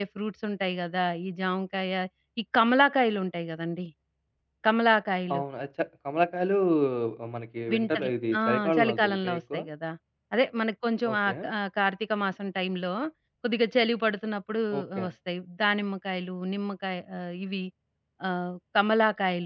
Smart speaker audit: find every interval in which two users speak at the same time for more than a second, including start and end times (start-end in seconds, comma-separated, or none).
7.7-9.6